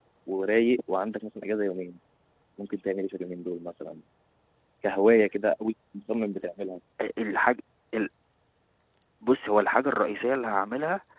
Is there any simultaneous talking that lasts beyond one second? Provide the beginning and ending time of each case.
none

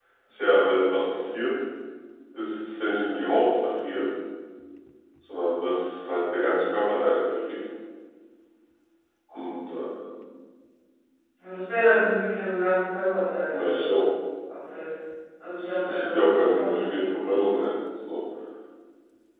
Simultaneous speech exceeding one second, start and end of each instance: 15.6-16.9

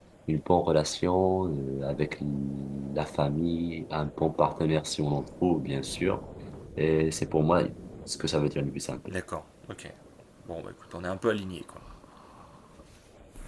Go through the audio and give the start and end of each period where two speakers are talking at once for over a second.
none

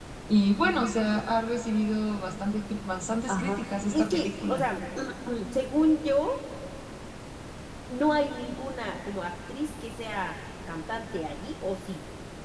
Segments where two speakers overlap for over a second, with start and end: 3.3-4.6

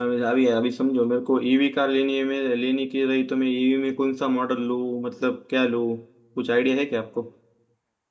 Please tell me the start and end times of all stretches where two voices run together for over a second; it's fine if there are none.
none

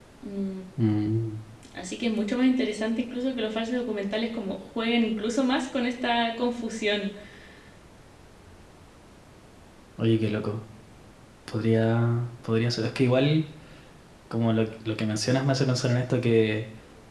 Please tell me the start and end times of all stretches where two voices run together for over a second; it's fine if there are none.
none

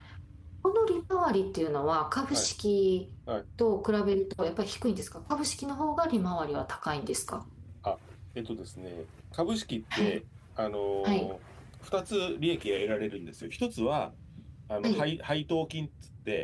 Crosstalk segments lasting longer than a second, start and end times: none

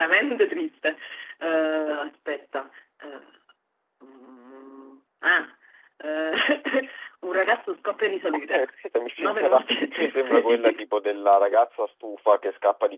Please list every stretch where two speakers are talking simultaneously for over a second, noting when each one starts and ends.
9.2-10.8

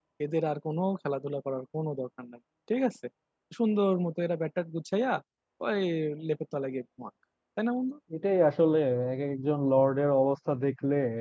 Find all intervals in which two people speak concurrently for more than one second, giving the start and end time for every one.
none

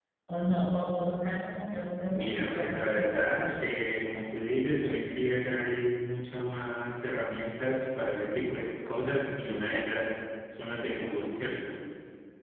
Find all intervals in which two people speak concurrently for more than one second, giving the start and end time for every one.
2.1-3.7

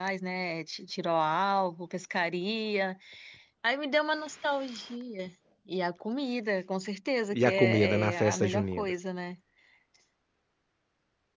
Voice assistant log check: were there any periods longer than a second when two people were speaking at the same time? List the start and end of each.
7.3-8.9

